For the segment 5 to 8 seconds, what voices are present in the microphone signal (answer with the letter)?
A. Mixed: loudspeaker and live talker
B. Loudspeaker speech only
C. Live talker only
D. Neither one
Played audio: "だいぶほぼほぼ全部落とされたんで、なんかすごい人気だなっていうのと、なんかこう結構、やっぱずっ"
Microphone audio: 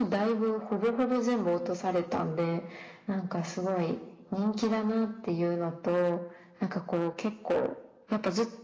B